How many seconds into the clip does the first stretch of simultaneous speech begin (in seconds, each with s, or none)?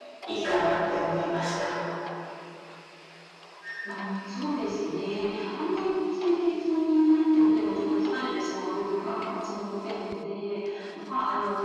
none